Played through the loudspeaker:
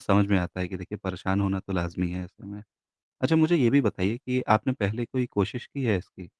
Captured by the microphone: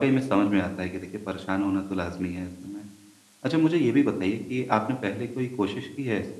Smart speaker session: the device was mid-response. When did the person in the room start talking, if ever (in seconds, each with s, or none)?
none